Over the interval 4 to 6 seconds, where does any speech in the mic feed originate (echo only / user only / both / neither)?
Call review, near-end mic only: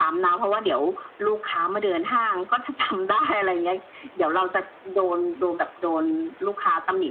echo only